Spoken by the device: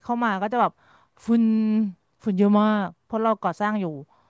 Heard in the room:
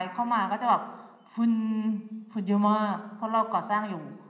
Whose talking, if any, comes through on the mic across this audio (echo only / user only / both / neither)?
echo only